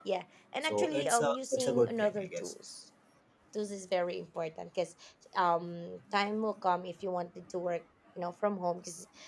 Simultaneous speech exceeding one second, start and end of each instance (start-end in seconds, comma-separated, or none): 0.6-2.5